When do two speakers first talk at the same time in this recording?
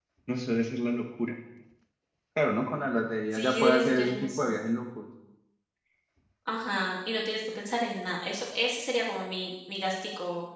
3.3 s

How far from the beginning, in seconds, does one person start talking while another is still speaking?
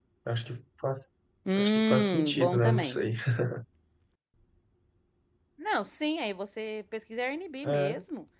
1.5 s

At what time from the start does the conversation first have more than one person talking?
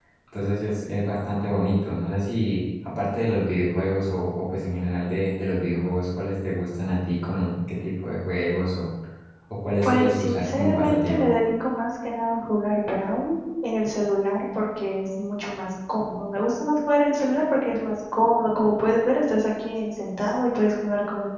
9.8 s

